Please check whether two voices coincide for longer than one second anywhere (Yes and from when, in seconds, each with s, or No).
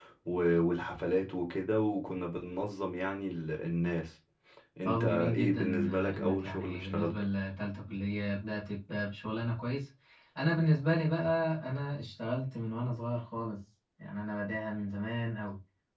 Yes, from 4.8 s